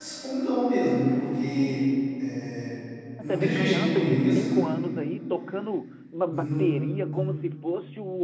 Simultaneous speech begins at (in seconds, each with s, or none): 3.2 s